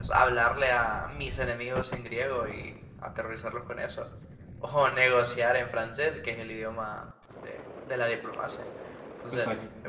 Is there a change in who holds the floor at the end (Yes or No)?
No